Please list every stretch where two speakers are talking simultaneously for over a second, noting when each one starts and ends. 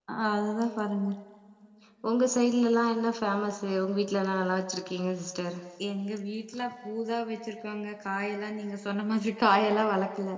none

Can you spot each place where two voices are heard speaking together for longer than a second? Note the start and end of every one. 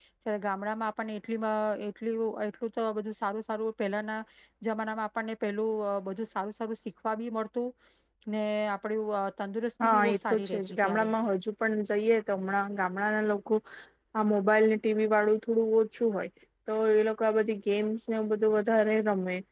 9.8-11.1

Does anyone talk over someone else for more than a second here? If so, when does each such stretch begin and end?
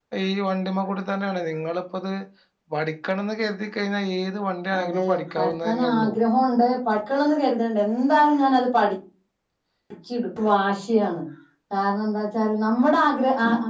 4.8-6.1

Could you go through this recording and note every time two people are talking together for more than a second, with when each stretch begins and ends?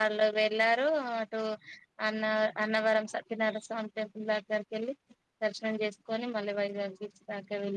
none

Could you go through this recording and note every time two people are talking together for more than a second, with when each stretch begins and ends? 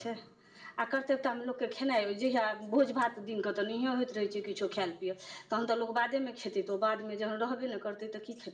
none

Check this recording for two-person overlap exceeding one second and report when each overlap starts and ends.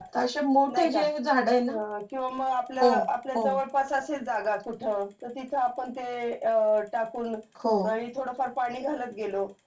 none

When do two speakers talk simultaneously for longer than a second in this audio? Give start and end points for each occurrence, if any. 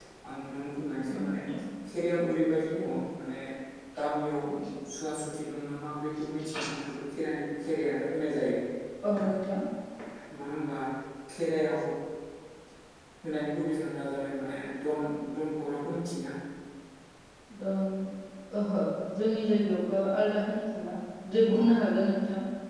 none

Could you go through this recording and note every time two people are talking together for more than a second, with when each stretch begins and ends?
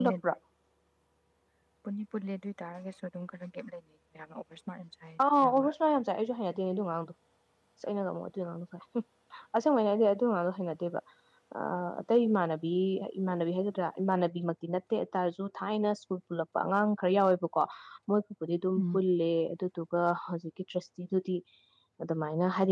none

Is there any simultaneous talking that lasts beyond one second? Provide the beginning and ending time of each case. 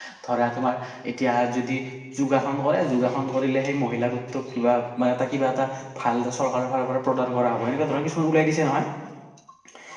none

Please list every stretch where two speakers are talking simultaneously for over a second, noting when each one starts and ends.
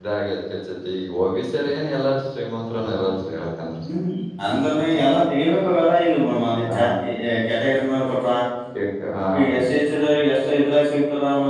none

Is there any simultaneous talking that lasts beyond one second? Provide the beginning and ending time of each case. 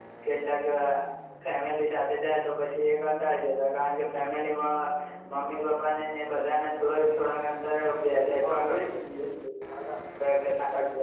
none

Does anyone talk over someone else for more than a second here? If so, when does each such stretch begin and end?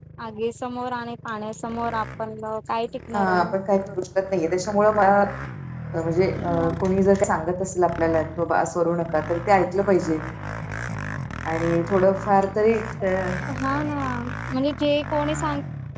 none

